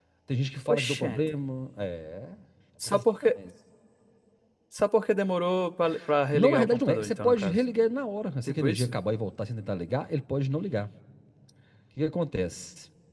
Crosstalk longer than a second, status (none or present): present